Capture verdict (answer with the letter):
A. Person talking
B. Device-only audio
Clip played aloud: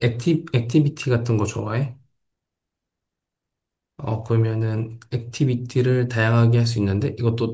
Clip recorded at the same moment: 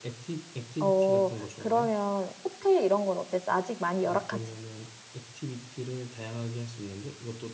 A